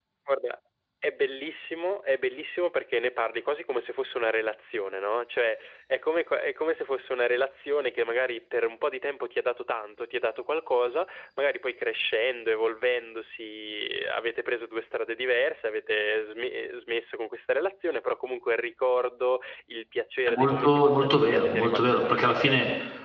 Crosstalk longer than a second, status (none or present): present